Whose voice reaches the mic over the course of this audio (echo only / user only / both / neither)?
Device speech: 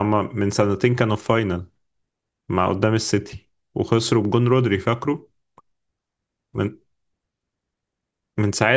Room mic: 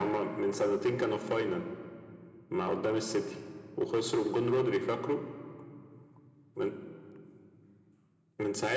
echo only